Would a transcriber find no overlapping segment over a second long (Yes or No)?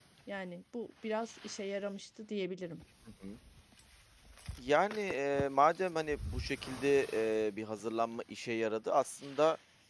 Yes